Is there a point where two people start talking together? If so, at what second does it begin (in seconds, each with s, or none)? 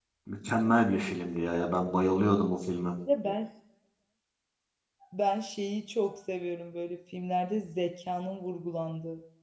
none